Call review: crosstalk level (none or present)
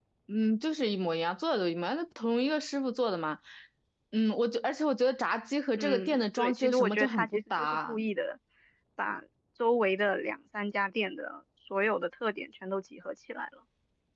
present